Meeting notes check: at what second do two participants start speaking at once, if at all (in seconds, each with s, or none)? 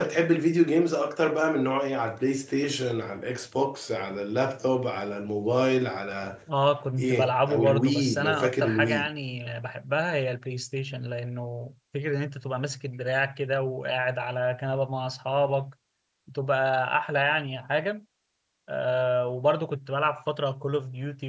7.0 s